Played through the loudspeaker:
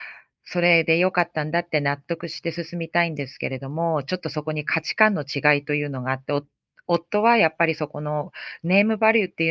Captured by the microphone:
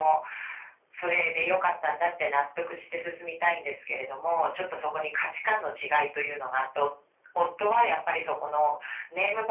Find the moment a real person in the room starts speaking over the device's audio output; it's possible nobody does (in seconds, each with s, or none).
none